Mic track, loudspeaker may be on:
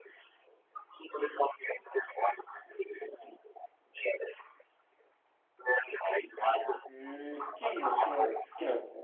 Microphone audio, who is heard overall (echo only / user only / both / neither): both